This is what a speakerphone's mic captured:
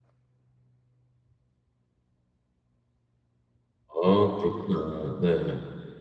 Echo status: none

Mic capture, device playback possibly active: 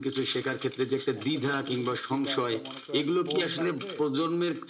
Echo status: present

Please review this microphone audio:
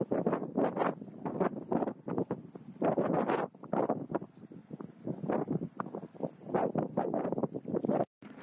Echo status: none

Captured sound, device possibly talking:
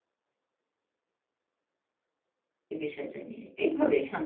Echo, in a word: none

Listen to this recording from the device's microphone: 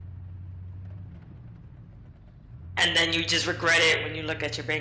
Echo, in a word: none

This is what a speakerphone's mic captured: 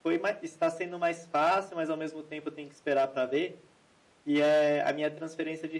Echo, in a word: none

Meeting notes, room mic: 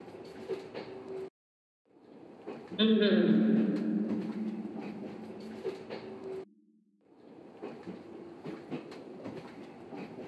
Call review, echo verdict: none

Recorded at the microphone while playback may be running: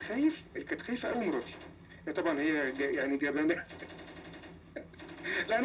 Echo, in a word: present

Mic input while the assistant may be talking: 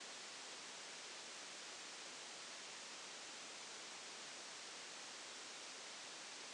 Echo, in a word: none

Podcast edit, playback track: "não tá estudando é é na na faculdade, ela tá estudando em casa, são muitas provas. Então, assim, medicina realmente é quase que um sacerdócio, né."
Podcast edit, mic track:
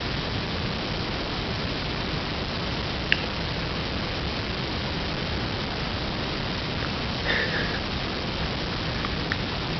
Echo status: none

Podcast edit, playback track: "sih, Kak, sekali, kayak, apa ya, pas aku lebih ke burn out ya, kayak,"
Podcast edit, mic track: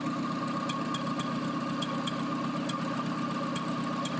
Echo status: none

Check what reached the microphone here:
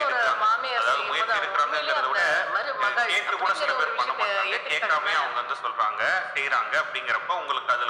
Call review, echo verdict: present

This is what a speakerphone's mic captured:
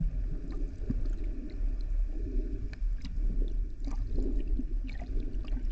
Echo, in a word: none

